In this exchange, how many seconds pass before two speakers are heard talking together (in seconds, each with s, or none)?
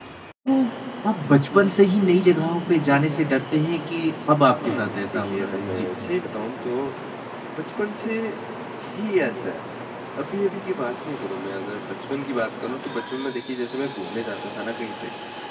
4.6 s